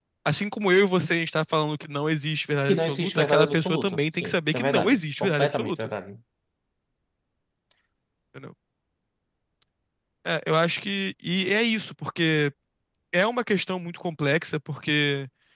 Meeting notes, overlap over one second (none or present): present